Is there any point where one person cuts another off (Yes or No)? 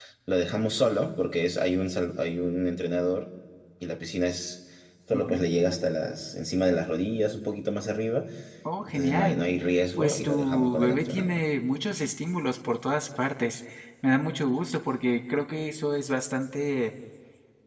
Yes